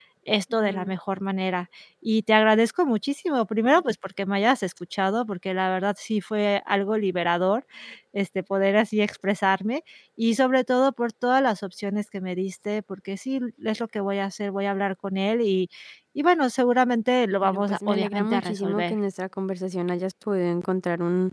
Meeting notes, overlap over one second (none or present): present